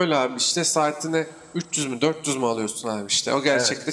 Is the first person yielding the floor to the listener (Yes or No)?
No